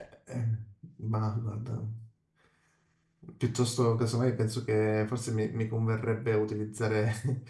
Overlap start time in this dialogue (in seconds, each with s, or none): none